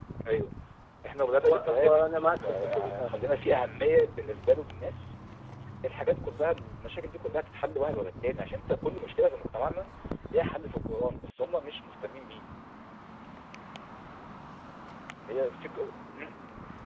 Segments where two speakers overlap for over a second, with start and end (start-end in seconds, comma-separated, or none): 1.3-3.5